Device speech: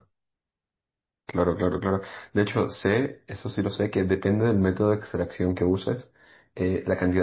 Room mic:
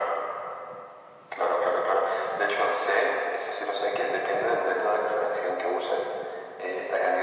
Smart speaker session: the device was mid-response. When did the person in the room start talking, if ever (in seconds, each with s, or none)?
none